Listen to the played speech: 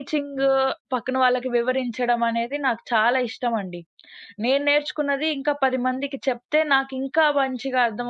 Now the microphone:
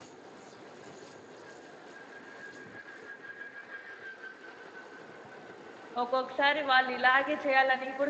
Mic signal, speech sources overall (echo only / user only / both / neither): user only